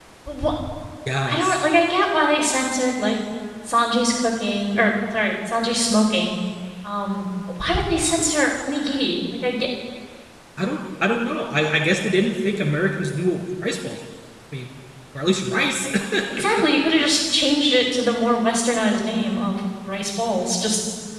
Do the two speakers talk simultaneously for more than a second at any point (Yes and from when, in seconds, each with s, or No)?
No